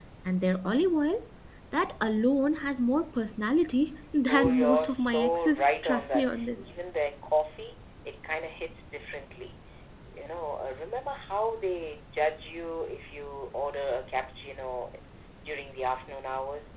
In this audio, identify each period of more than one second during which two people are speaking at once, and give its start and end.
4.3-6.7

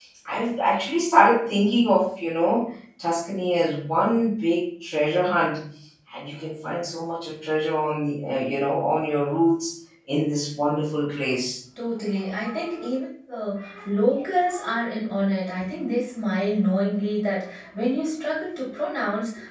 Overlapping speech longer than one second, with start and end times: none

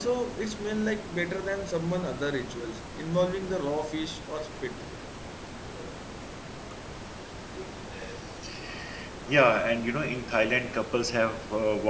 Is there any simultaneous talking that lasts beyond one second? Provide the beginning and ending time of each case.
none

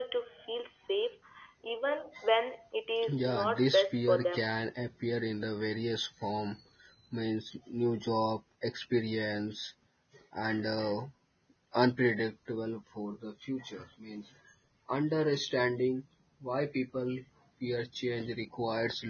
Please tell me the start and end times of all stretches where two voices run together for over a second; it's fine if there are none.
3.1-4.4

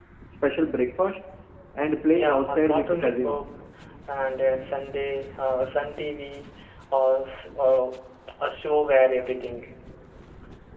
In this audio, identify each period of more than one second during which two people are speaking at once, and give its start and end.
2.1-3.5

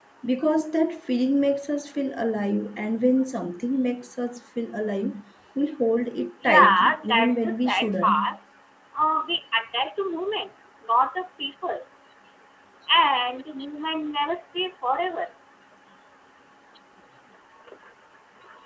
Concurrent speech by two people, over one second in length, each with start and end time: 6.4-8.3

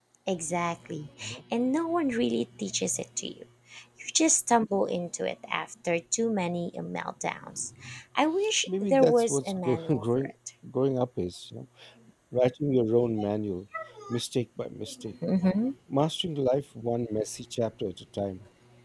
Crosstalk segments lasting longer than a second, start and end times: 8.8-10.3

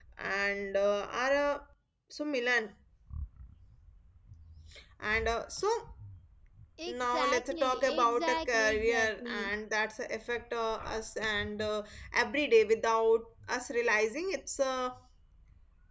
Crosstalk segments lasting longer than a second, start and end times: 6.9-9.4

